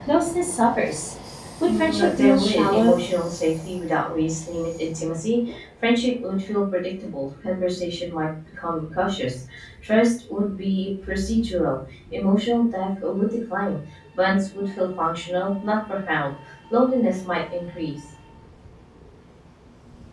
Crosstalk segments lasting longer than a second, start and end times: 1.7-3.0

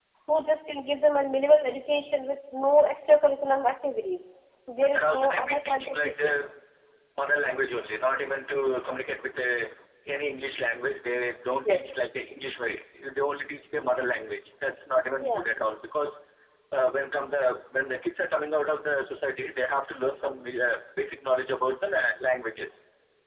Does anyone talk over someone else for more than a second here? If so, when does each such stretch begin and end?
4.9-6.4

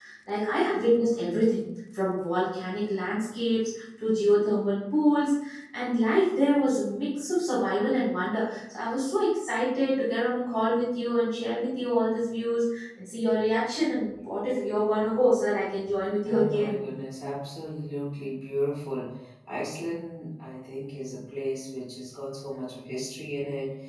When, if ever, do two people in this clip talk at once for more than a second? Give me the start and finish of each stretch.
none

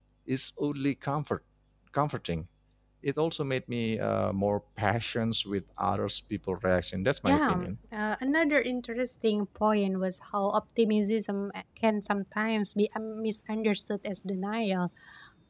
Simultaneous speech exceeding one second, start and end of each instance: none

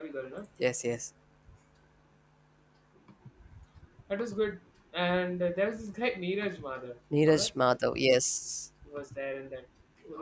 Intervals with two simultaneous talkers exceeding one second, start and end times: none

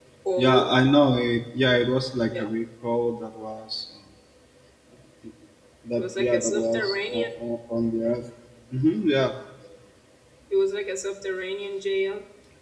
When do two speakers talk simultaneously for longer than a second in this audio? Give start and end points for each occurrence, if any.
6.0-7.4

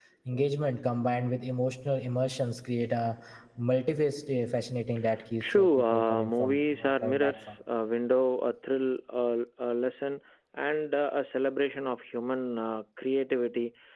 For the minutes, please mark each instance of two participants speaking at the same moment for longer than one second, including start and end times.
5.4-7.5

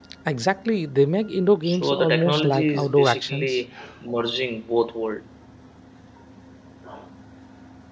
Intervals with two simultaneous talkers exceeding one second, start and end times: 1.6-3.6

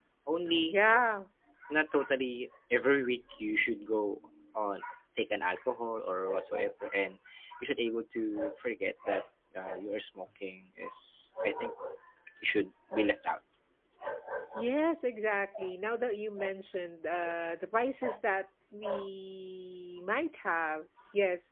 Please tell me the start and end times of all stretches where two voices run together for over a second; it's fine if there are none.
none

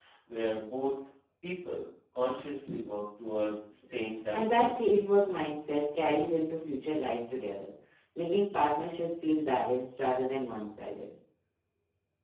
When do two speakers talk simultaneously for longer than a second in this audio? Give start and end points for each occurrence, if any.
none

